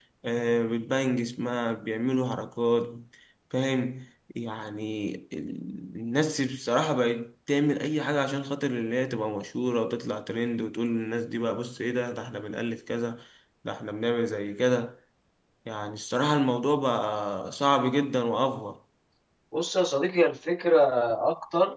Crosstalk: none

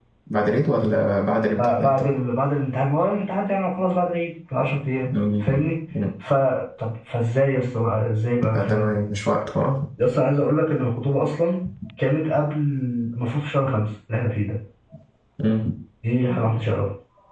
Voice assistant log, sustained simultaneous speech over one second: none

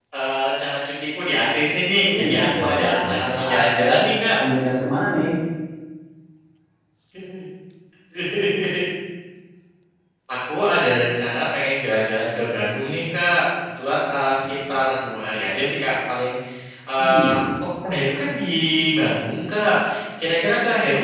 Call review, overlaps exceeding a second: present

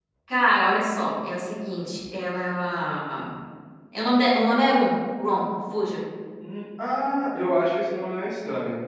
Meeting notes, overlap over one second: none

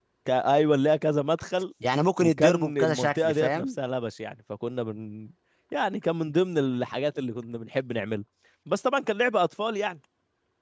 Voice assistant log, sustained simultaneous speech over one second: present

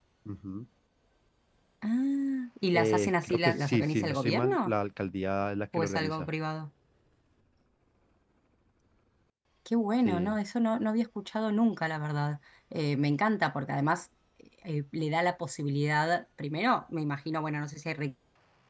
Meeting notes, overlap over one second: present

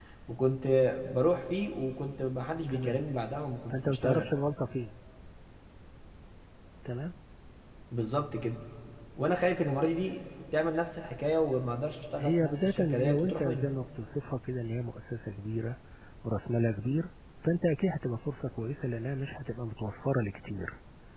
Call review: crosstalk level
present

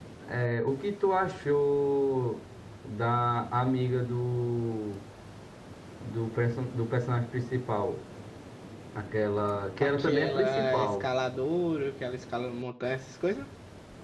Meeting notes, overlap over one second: present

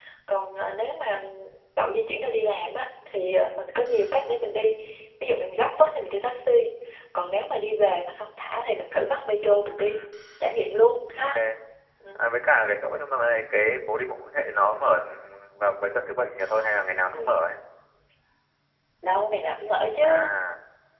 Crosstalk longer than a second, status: none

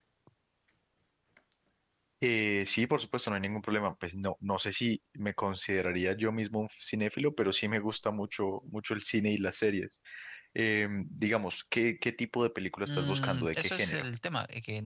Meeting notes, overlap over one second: present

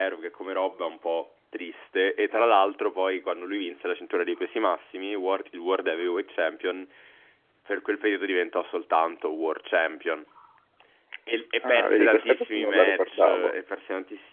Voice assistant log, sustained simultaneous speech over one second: present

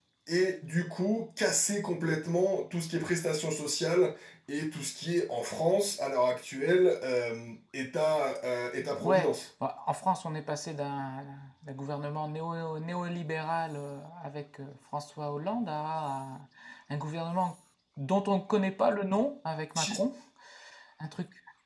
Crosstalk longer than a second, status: none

